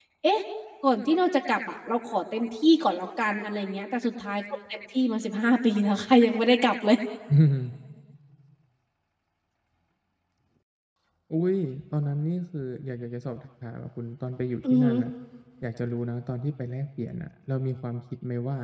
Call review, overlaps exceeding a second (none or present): none